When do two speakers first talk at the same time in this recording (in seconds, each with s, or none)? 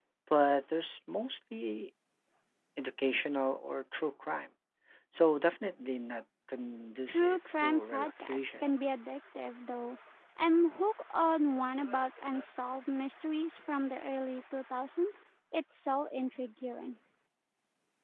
7.1 s